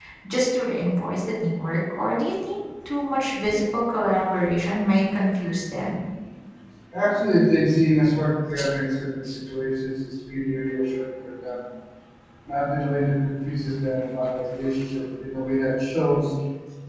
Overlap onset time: none

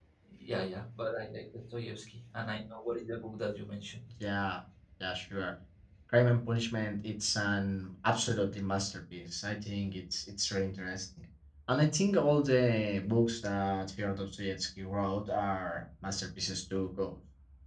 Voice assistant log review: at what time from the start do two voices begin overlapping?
none

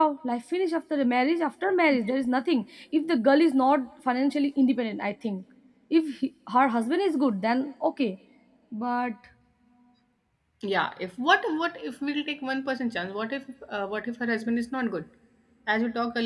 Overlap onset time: none

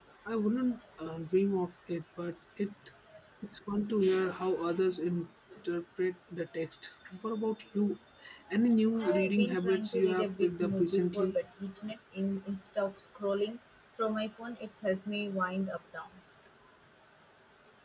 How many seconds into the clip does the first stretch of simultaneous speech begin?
9.0 s

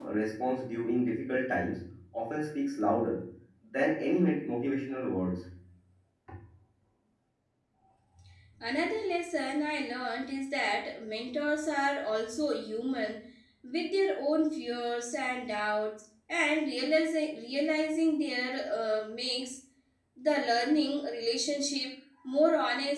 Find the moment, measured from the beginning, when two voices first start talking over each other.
none

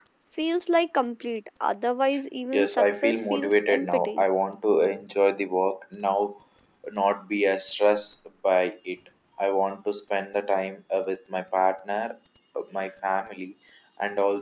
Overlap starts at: 2.5 s

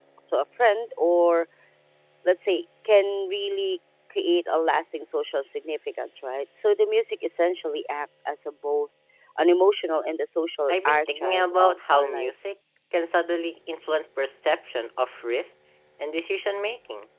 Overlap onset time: 10.7 s

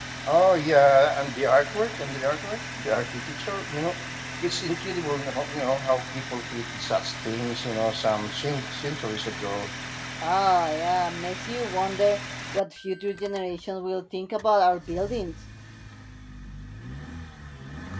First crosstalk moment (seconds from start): none

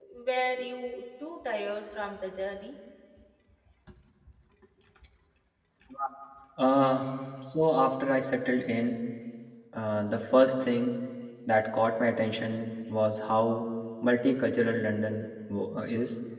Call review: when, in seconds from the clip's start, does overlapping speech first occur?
none

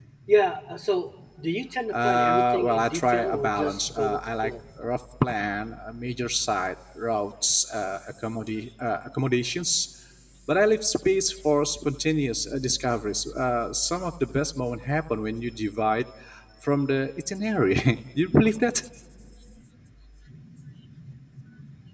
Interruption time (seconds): 1.9 s

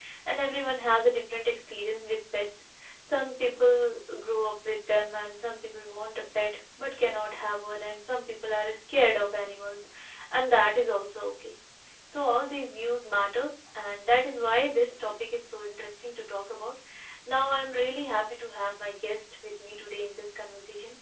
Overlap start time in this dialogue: none

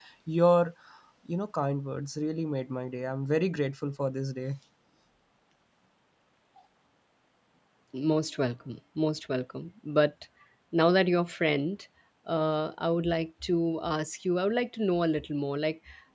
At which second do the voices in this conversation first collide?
none

